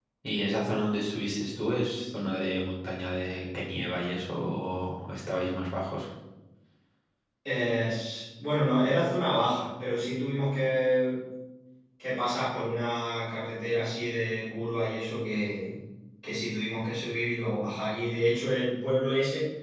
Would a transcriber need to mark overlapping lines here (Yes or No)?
No